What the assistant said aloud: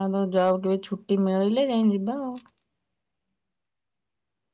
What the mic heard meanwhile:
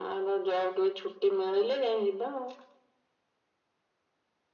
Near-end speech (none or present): none